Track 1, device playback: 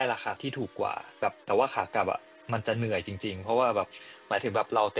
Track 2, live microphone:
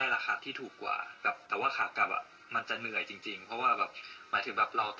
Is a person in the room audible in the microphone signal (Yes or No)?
No